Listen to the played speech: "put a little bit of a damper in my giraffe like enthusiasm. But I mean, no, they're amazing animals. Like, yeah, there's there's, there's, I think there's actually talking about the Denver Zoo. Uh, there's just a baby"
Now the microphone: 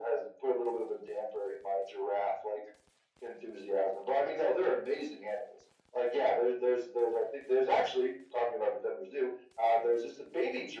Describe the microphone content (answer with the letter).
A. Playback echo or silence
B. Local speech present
A